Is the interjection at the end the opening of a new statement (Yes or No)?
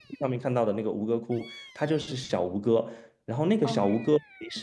No